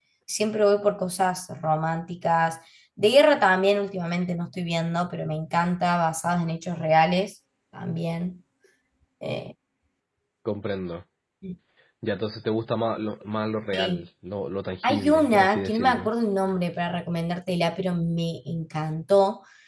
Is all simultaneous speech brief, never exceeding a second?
No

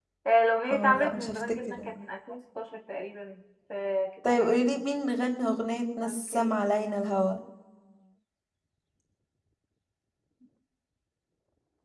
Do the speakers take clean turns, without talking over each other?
No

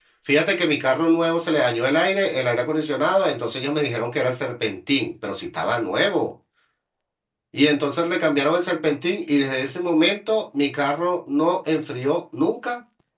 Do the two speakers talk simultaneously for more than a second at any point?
No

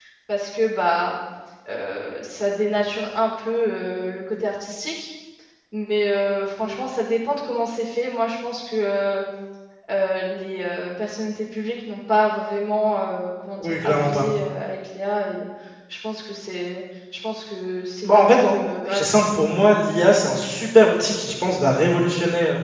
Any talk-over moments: Yes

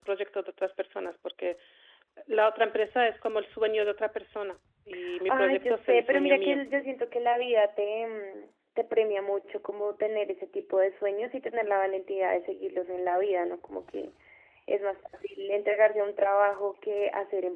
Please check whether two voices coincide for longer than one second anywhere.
Yes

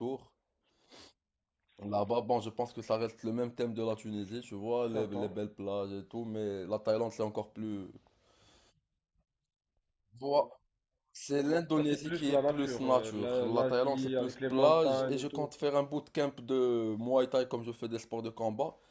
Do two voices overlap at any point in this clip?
Yes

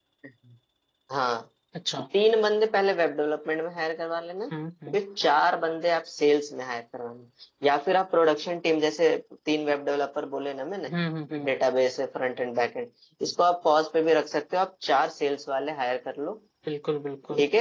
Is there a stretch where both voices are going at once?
No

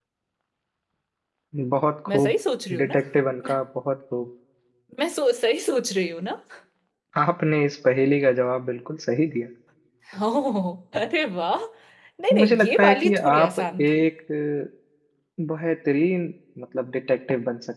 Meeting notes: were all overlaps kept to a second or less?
No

